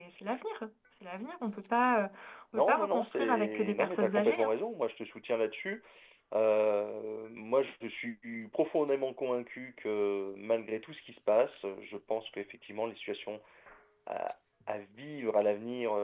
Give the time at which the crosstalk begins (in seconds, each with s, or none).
2.5 s